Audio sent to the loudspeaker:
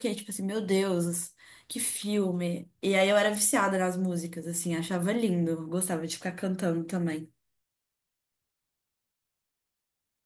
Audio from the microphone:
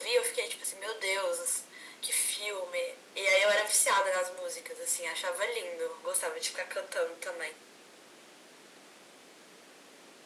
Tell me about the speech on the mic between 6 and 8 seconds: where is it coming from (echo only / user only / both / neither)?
echo only